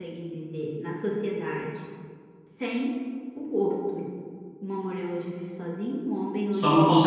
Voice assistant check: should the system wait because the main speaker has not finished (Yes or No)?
No